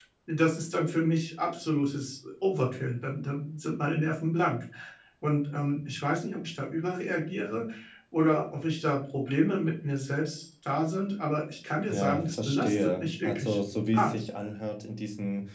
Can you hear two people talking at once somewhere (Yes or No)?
Yes